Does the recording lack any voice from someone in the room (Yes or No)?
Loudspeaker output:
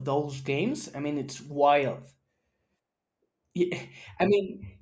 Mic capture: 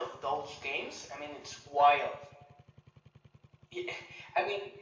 Yes